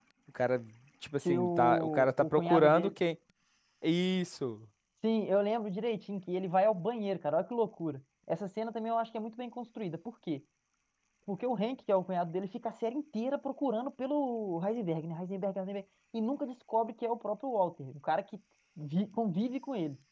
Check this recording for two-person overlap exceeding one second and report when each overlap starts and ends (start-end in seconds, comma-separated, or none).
1.2-2.9